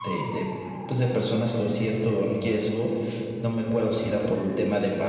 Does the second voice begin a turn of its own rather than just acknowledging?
No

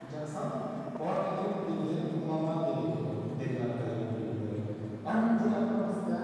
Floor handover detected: No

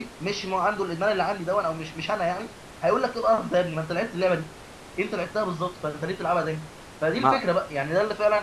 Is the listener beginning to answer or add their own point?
No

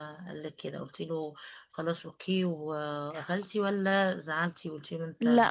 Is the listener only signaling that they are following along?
No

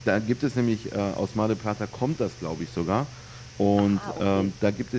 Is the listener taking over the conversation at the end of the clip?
No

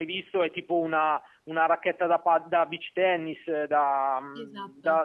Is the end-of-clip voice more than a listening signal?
No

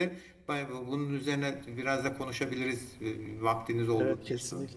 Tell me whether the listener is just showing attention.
No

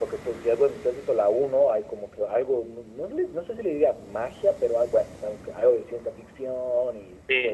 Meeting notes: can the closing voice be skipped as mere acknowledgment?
No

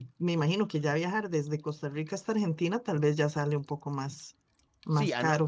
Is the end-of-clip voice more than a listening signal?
Yes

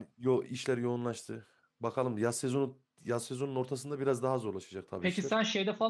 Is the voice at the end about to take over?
Yes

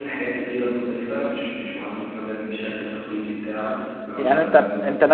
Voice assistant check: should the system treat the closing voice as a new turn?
Yes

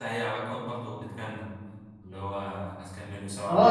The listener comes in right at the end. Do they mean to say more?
Yes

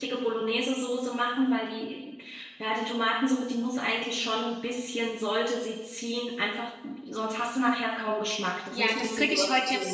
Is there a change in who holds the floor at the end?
Yes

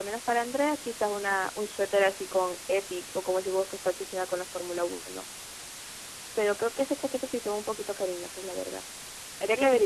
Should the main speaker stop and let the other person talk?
Yes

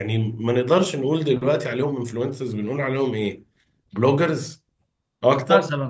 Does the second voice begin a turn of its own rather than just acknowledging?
No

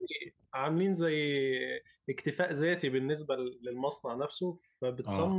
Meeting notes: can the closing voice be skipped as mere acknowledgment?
Yes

